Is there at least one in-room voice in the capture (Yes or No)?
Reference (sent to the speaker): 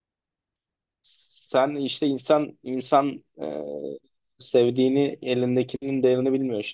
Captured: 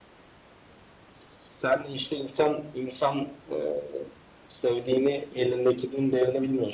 No